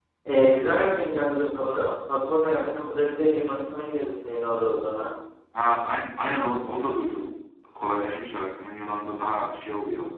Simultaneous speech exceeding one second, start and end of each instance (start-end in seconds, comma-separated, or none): none